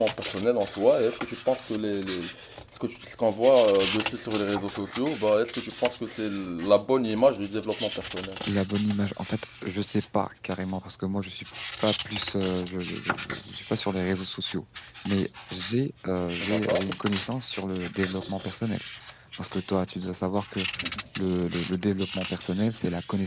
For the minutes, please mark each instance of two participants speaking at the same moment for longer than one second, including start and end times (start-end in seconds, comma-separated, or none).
none